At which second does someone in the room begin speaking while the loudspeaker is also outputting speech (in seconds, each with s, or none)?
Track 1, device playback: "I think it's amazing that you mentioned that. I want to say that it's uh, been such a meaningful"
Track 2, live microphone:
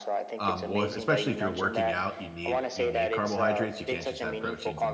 0.3 s